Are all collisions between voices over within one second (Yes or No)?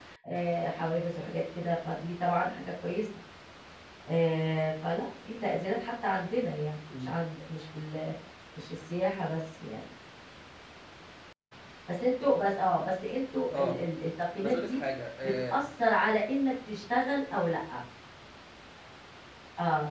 Yes